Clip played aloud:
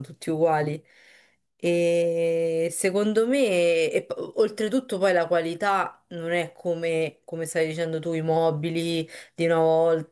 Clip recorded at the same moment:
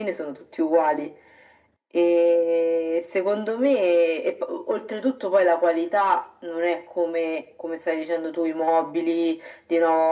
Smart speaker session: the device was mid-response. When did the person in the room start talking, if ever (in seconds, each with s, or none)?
none